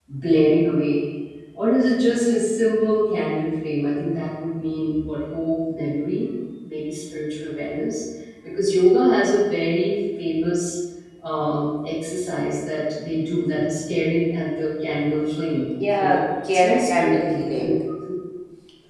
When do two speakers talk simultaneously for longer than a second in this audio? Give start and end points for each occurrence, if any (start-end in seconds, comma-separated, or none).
15.9-17.7